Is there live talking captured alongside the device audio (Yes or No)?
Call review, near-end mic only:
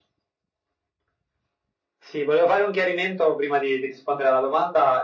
No